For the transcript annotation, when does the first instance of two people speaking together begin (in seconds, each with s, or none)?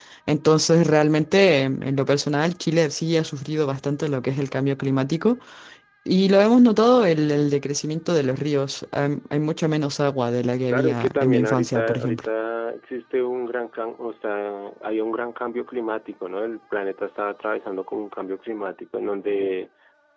10.7 s